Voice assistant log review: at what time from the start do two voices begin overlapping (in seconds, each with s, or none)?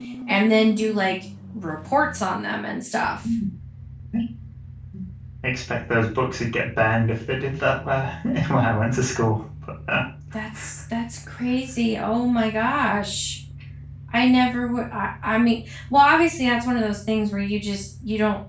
none